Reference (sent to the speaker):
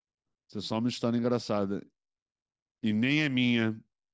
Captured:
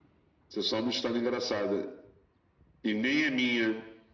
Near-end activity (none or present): none